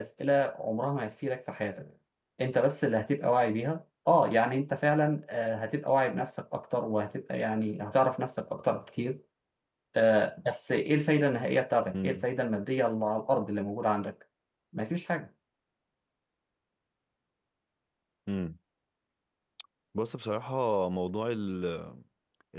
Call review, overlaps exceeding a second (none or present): none